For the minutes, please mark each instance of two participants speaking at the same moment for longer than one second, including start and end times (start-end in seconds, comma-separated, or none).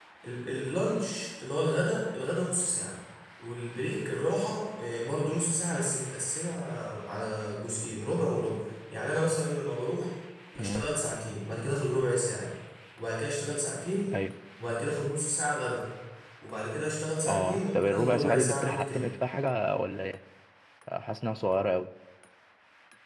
17.3-19.1